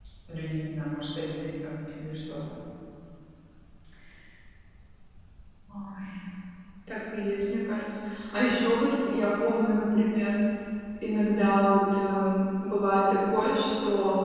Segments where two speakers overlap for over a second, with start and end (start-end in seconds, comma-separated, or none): none